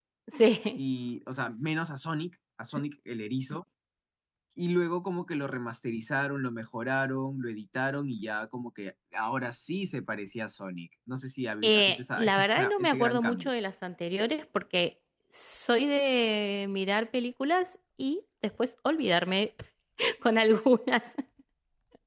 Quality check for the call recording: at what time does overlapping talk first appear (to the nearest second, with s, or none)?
12 s